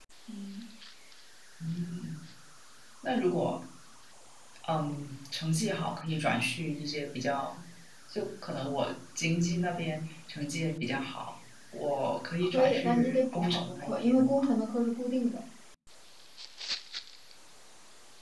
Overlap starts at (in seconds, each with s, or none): 12.5 s